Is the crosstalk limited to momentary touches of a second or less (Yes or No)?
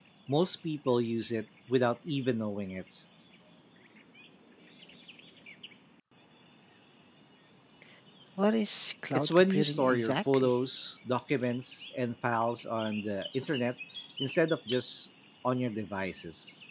No